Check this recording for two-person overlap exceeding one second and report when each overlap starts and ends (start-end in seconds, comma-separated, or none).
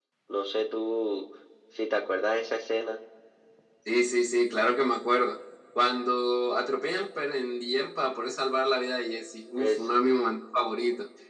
none